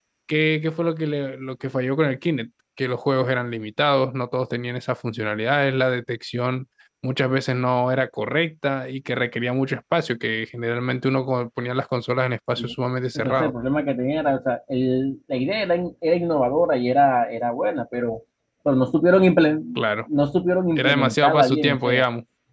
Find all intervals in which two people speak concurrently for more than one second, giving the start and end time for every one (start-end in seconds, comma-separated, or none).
20.8-22.0